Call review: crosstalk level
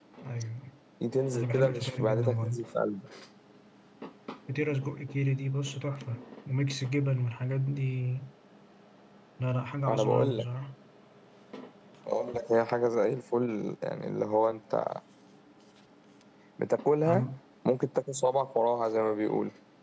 present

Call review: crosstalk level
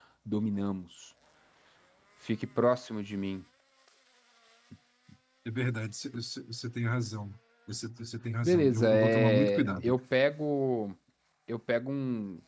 present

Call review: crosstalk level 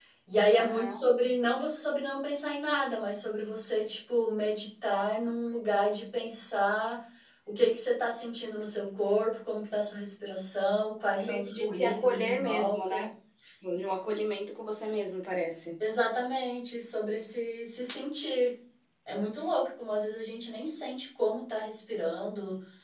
present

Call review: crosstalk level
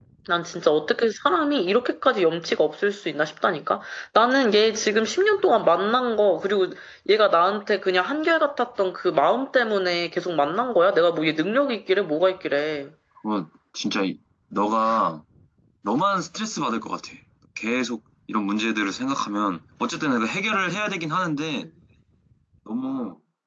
none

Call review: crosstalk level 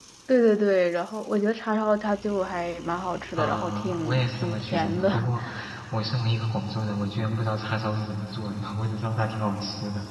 present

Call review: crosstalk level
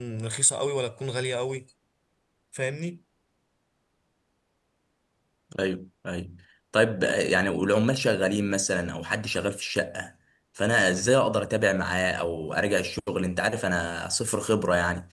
none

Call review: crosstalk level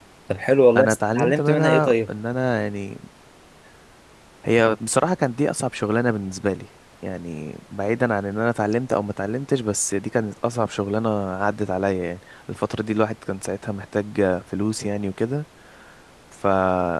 present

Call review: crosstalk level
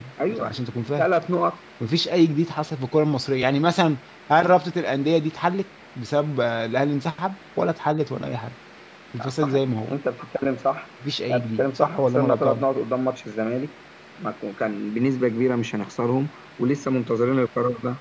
present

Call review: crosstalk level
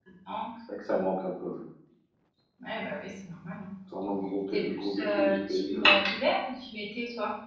present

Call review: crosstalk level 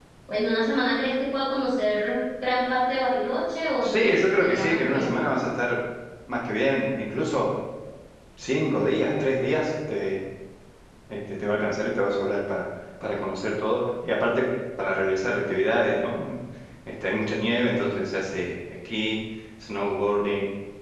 present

